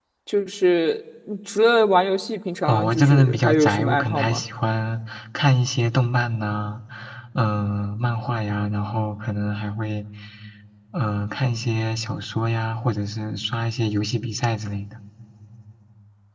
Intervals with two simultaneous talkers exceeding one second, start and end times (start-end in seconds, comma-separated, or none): 2.6-4.4